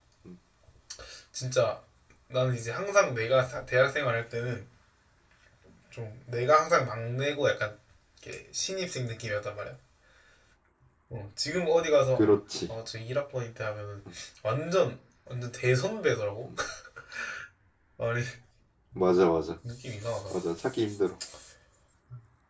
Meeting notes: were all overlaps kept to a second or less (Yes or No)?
Yes